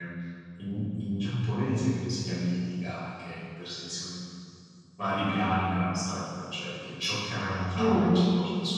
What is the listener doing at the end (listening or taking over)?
listening